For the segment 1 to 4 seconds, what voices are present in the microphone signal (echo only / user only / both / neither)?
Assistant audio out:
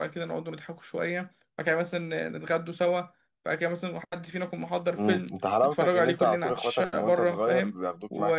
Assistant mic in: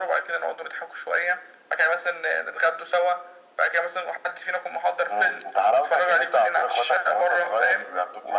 echo only